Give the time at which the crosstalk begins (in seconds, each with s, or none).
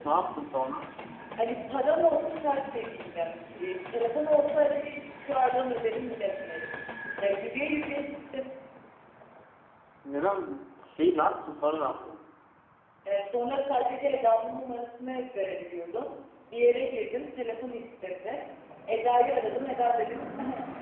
none